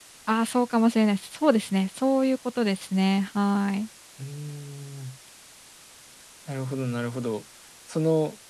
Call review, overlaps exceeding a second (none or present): none